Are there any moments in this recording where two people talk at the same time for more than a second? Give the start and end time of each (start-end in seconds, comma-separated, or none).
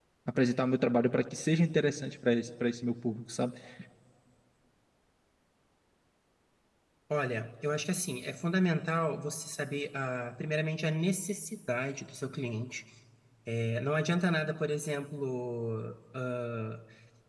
none